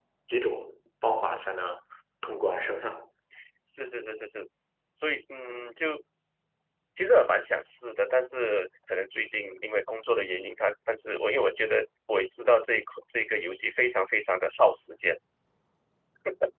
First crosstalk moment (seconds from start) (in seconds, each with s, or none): none